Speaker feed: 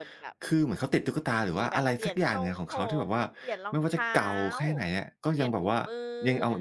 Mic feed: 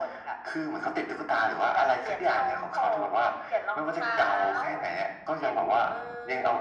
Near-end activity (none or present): none